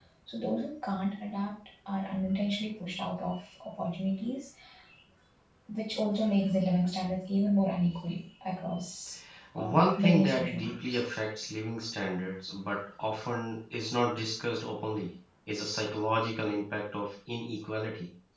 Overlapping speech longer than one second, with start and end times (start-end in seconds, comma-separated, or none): 9.7-11.0